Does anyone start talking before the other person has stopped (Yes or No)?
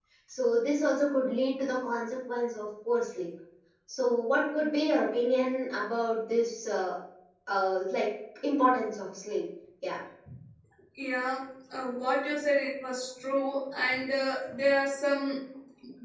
No